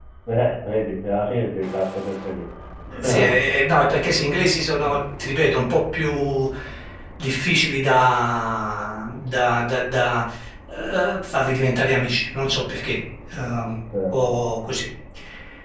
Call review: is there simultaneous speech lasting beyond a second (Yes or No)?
No